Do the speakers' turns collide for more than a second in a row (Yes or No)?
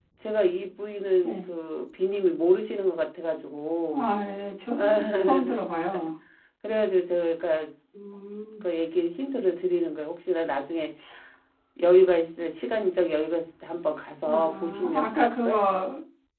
Yes